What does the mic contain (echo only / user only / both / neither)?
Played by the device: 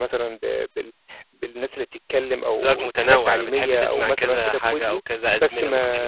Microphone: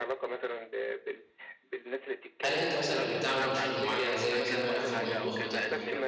both